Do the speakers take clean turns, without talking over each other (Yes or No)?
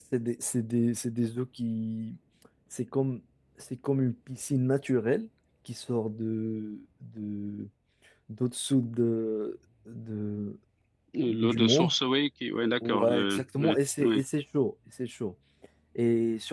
No